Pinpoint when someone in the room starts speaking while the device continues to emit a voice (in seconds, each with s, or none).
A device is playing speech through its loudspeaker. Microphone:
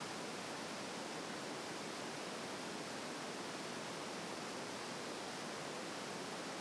none